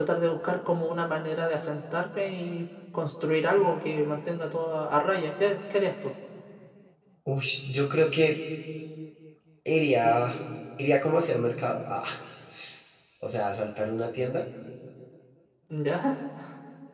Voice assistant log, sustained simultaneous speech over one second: none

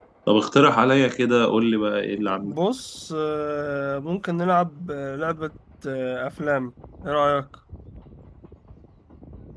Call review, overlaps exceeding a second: none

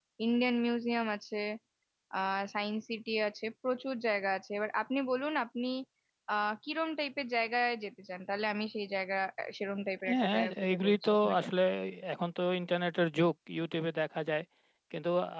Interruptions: present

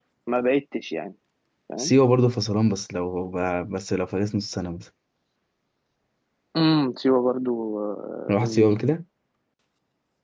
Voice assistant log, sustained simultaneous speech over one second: none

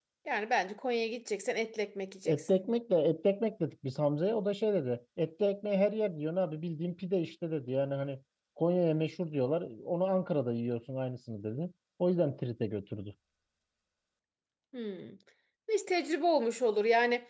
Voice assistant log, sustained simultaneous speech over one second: none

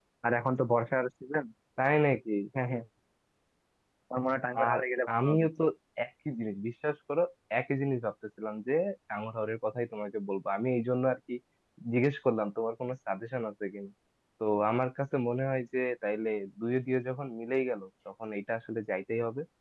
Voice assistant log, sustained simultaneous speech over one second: none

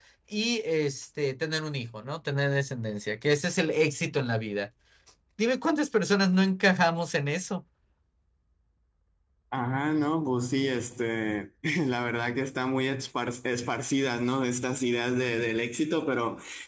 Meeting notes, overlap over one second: none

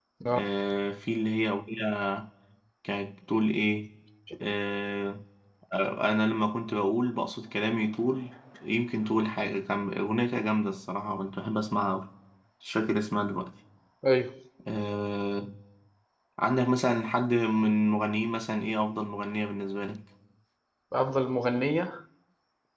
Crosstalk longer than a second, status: none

